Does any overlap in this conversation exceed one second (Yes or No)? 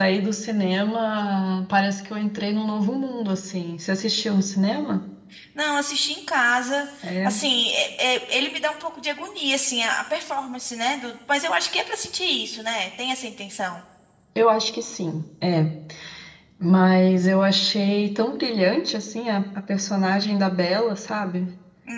No